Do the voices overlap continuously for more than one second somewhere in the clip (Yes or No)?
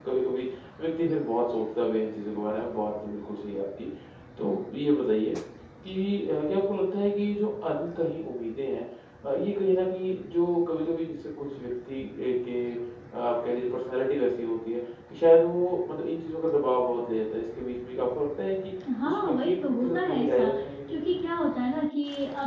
Yes